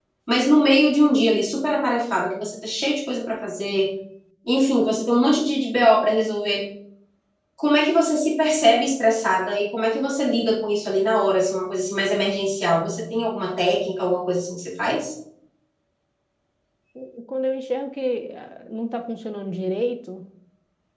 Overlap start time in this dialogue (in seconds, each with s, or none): none